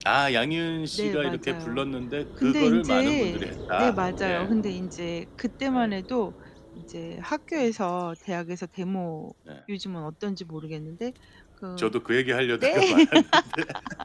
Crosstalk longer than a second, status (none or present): present